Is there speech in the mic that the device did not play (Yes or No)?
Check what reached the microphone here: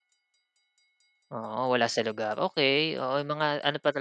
Yes